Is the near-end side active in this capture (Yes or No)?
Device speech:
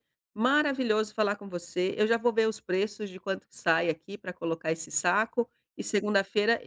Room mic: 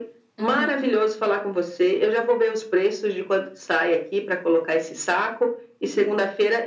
Yes